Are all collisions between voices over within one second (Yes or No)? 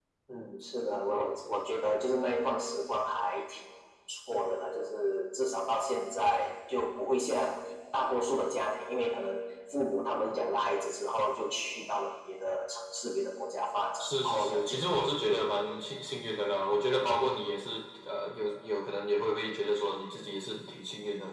No